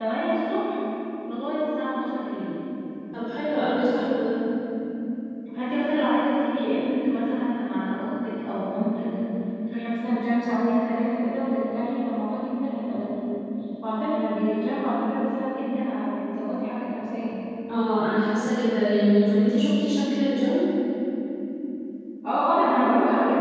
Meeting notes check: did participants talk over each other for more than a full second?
No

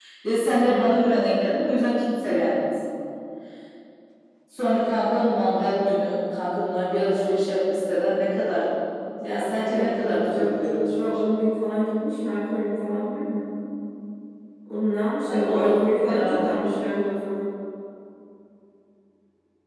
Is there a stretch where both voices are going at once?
Yes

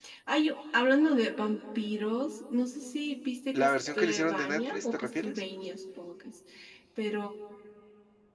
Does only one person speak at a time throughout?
No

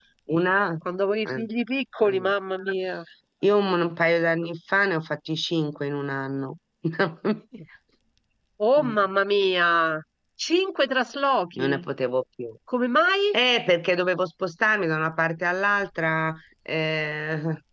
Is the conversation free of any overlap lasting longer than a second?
Yes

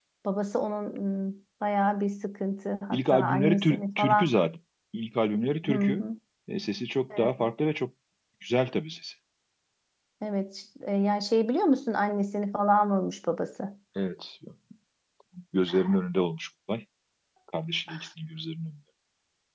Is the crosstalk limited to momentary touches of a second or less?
No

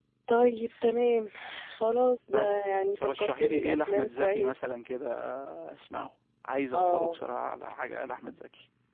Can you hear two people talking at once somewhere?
Yes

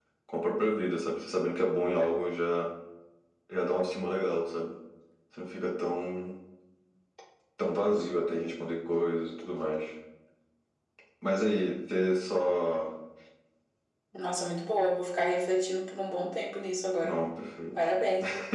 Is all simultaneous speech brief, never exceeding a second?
Yes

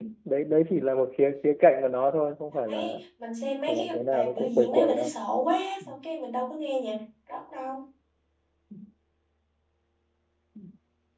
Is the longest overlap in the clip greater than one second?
Yes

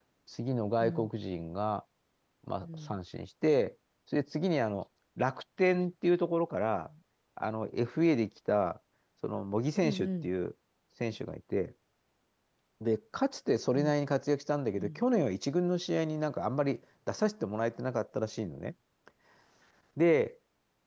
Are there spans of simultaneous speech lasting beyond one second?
No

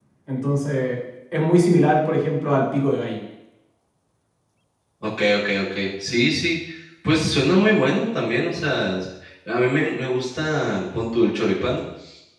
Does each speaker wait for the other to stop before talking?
Yes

